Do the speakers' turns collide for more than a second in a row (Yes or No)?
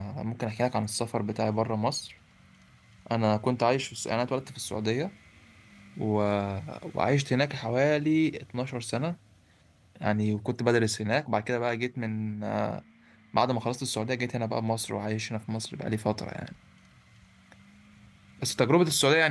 No